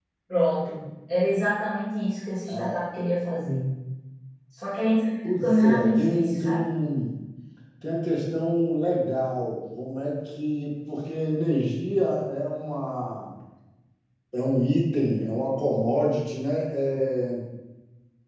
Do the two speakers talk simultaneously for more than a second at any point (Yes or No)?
Yes